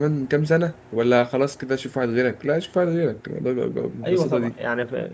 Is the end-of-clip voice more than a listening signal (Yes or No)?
Yes